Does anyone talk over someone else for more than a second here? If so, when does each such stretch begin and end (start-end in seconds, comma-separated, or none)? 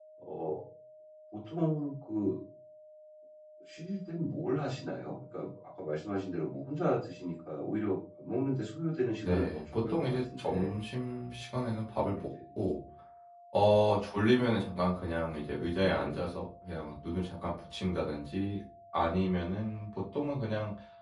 9.2-10.7